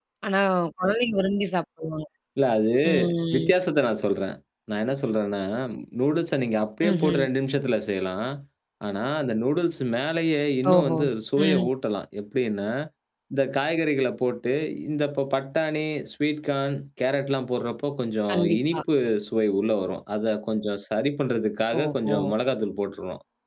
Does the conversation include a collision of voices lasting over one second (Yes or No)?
No